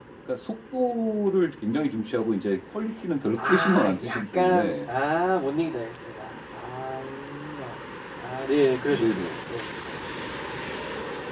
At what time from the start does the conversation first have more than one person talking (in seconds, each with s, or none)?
3.4 s